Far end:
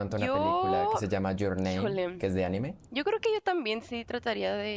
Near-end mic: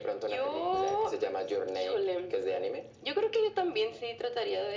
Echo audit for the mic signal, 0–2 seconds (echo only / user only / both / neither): echo only